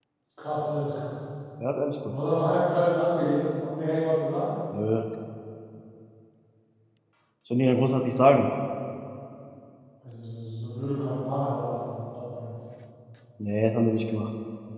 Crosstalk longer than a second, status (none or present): none